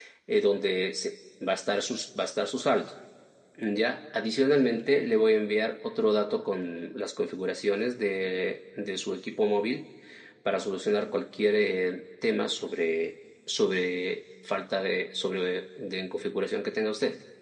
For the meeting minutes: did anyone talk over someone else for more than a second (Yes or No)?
No